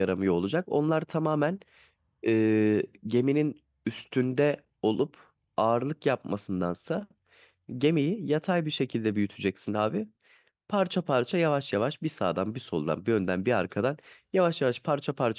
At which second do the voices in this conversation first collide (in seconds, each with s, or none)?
none